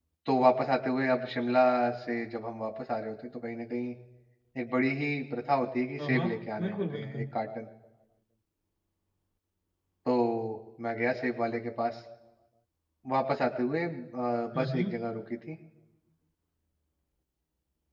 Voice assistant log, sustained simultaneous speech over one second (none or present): present